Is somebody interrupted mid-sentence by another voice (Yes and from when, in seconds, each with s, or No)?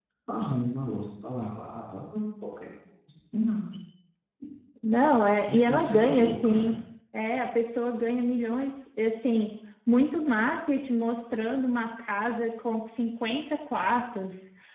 Yes, from 5.5 s